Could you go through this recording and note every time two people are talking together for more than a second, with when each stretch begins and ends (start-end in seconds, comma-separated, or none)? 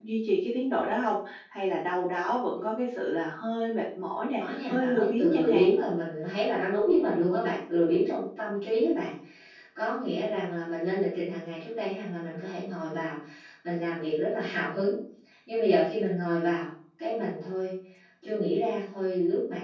4.4-5.8